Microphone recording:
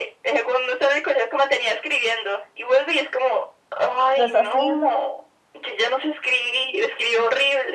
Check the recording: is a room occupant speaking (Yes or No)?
Yes